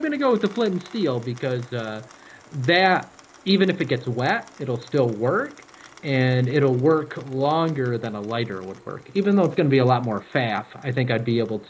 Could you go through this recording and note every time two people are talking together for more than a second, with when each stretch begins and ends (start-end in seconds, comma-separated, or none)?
none